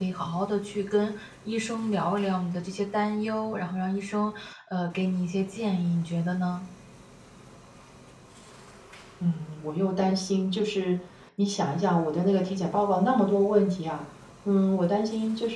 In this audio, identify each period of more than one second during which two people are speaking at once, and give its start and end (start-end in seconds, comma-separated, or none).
none